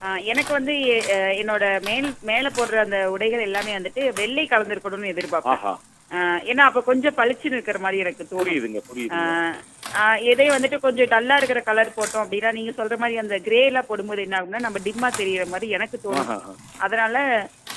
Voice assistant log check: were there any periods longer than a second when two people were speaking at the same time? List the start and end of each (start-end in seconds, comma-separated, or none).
none